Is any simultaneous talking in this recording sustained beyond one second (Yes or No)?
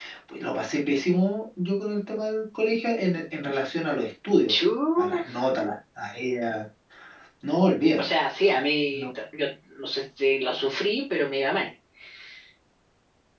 No